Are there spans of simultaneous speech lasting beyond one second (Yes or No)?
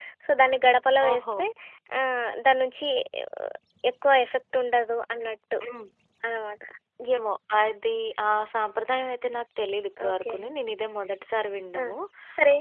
No